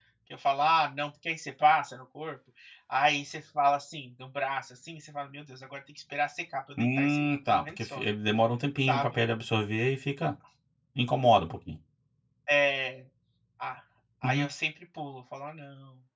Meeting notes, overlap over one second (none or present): present